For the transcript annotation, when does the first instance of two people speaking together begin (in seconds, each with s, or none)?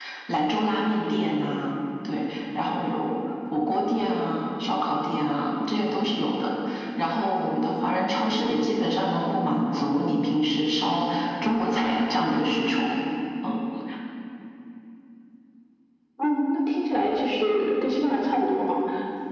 none